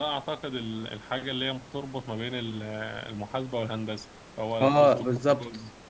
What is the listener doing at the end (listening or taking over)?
taking over